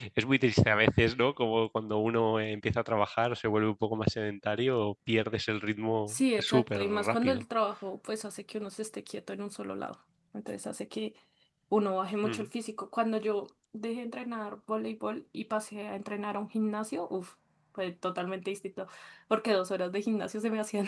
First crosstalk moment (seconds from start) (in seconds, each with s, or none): 6.1 s